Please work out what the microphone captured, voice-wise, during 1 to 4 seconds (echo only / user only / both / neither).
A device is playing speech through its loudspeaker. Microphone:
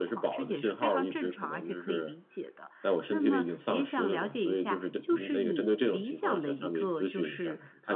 echo only